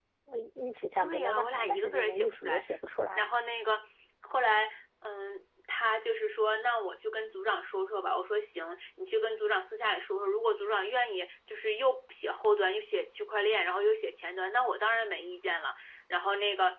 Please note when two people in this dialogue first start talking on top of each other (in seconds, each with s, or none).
1.0 s